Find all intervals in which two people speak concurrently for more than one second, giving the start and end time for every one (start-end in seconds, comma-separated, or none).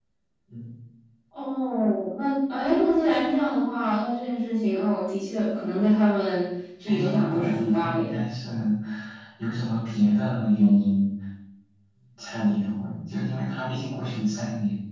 6.8-8.2